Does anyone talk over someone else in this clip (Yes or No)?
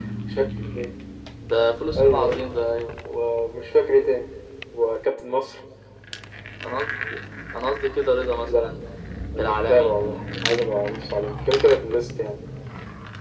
Yes